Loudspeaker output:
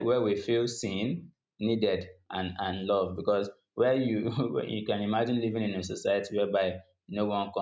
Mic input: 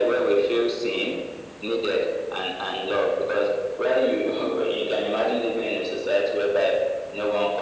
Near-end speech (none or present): none